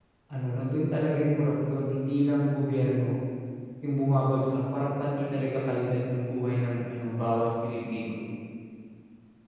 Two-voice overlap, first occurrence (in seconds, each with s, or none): none